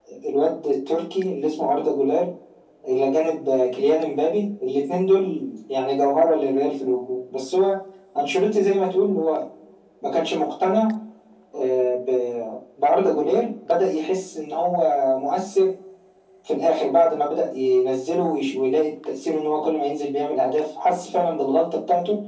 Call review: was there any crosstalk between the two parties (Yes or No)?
No